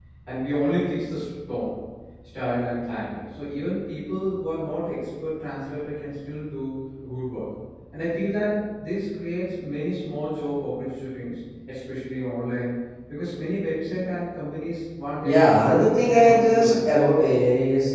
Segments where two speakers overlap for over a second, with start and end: 15.2-16.9

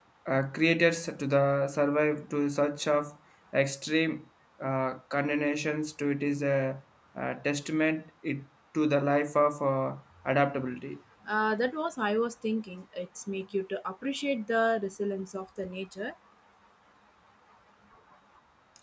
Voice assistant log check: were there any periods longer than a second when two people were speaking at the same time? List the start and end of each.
none

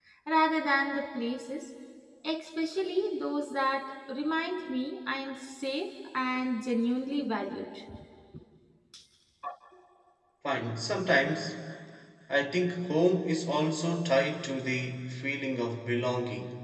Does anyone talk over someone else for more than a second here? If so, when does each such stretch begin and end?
none

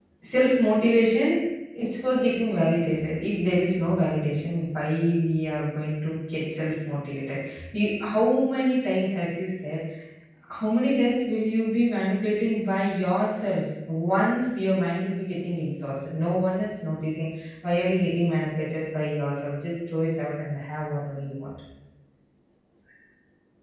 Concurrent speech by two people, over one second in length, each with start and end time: none

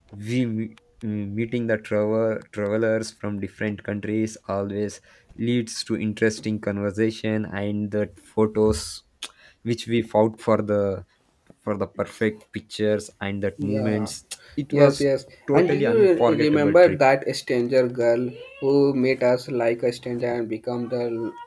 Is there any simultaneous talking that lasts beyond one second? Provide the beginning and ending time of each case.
15.5-17.0

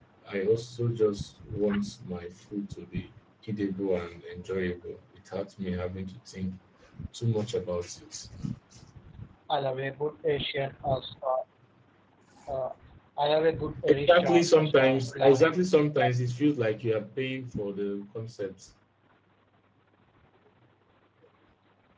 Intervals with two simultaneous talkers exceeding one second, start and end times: 13.8-15.5

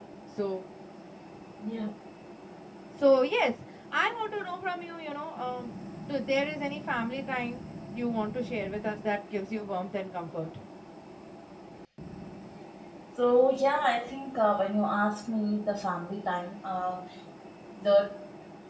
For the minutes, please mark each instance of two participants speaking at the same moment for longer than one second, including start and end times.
none

